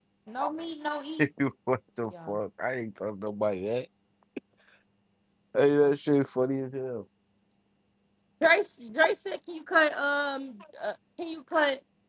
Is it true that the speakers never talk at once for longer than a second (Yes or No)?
Yes